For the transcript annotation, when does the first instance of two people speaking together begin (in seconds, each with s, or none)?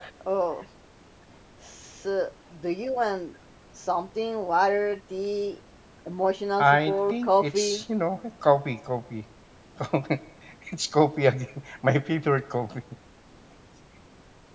6.6 s